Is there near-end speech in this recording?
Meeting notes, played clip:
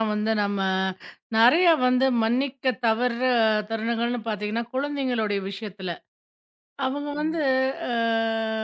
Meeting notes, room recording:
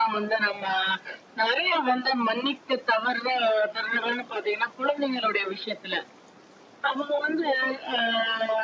No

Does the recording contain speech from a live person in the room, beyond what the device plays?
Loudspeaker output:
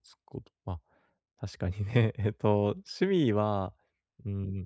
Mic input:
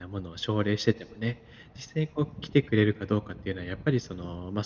Yes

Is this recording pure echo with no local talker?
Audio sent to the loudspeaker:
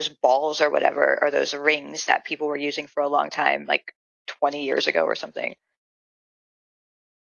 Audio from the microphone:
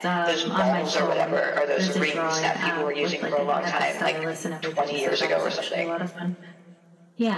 No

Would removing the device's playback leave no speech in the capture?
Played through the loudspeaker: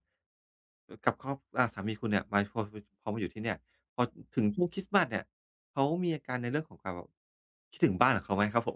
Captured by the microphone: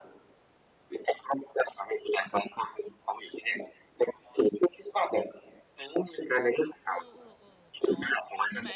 No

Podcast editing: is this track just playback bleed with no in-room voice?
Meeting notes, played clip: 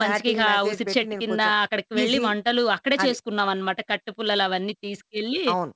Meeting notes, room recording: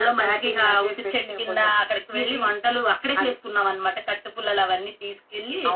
Yes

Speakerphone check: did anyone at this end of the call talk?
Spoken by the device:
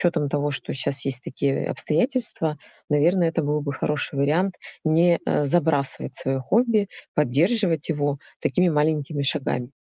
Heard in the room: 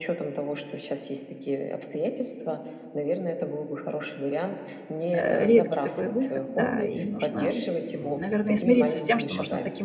Yes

